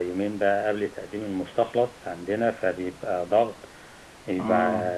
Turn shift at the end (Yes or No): No